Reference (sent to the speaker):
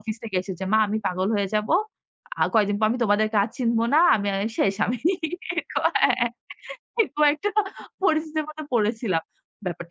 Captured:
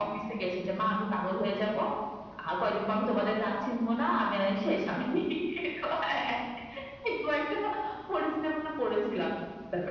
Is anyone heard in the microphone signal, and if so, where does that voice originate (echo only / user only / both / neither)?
echo only